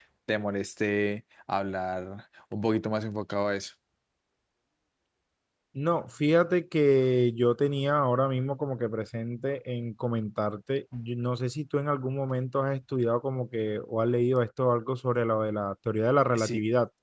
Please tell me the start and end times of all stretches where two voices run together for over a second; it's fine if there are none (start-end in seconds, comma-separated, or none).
none